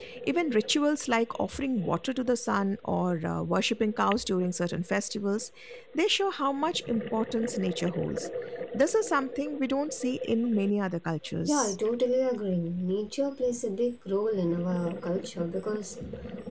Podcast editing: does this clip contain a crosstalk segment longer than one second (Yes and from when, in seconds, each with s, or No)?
No